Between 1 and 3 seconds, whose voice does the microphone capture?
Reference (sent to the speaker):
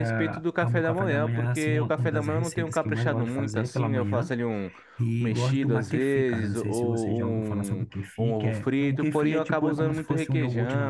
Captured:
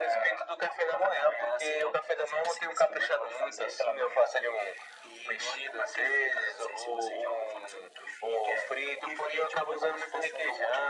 echo only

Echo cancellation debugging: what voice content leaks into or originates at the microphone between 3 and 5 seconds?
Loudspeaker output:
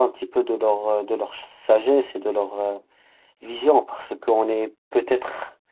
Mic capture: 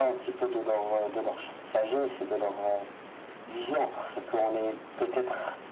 echo only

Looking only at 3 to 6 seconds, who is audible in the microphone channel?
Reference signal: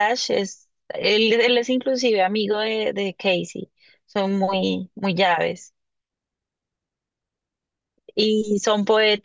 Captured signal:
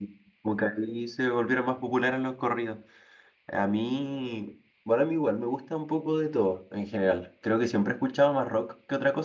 user only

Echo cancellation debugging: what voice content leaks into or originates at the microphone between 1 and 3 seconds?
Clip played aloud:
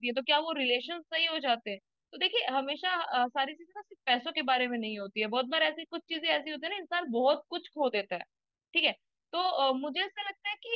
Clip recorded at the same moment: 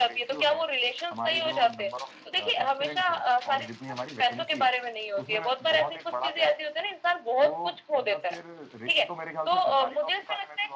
both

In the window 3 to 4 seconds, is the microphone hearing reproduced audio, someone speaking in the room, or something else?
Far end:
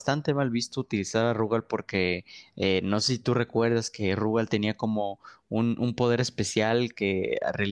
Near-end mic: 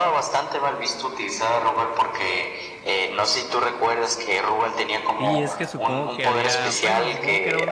echo only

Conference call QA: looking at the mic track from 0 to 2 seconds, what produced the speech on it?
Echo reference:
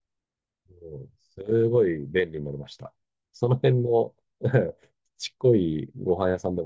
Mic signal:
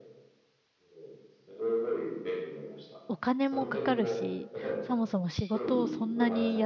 echo only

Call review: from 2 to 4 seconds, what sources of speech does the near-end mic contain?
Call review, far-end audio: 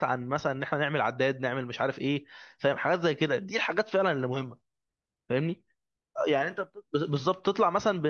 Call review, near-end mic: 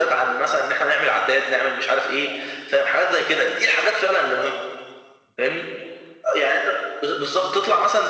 echo only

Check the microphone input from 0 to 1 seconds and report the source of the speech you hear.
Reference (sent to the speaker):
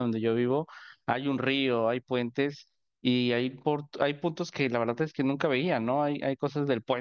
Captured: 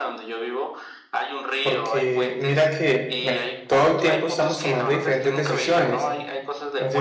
echo only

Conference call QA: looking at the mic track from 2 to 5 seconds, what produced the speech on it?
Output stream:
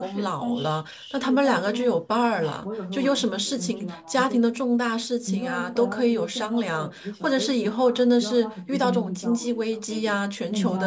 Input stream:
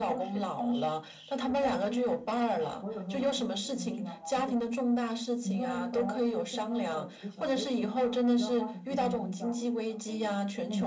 echo only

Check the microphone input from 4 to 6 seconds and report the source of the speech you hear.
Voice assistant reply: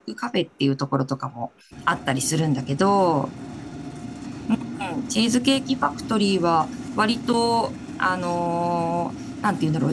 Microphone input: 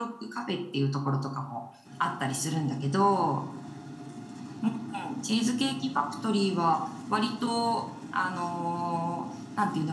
echo only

